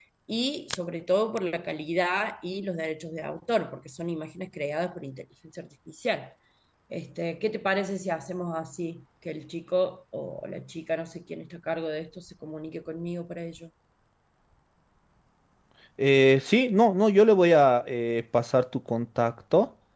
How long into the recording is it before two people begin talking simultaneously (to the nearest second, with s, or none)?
none